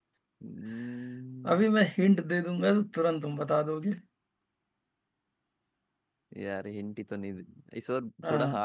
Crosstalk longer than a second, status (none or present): none